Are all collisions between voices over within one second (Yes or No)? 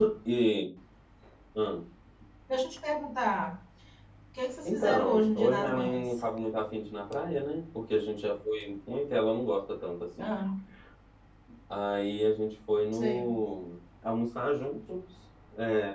No